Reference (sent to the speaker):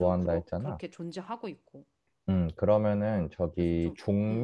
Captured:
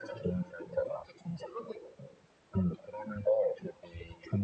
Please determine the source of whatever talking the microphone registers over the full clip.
echo only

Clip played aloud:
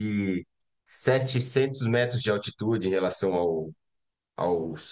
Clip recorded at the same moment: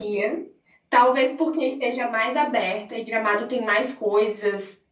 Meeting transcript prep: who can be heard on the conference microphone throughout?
user only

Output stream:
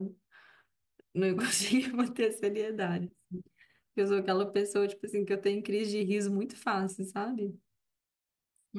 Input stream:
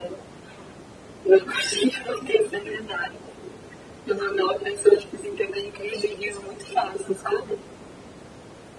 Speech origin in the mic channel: echo only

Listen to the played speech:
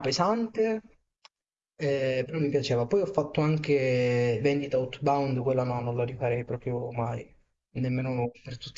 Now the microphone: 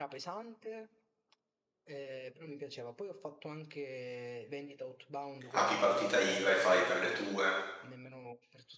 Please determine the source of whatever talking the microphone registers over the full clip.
both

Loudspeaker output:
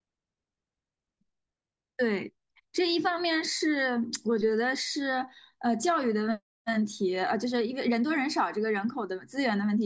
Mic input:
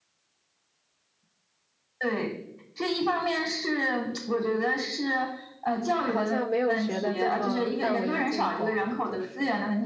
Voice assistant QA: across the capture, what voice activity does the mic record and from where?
both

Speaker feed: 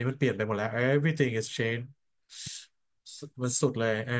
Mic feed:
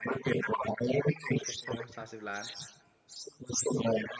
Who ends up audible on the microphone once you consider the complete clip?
both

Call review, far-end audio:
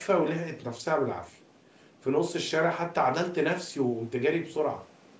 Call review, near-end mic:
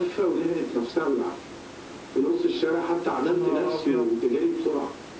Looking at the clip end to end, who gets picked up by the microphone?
both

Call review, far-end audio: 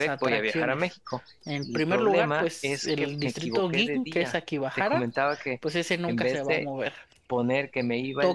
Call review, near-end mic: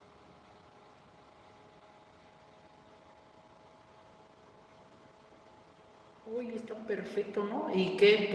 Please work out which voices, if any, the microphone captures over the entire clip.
user only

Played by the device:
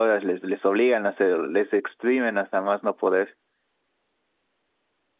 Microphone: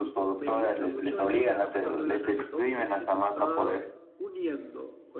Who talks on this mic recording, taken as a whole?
both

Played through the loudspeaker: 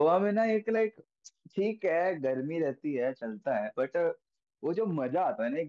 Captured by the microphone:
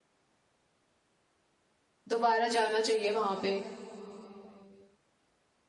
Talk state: user only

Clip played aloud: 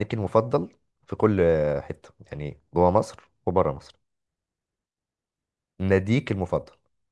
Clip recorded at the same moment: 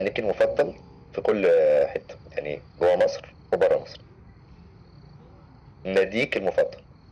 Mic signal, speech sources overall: echo only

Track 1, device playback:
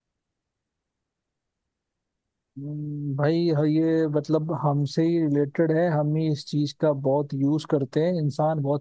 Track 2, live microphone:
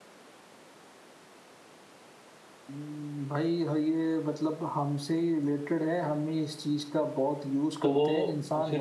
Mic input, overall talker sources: both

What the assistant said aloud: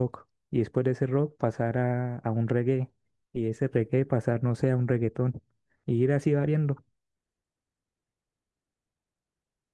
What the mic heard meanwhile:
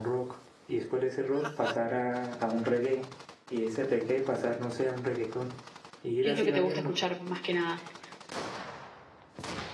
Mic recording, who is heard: both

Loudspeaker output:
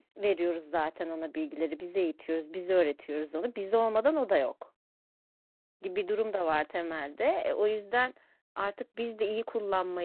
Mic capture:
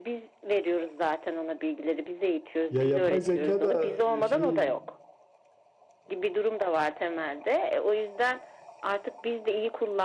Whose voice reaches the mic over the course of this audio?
both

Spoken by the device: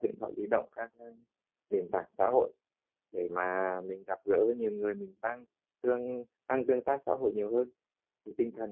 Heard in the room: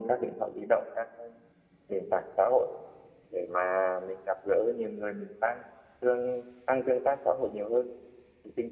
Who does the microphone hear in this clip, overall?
echo only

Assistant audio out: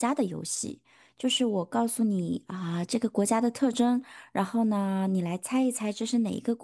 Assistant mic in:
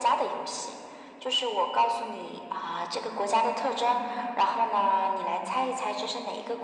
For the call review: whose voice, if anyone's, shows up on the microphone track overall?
both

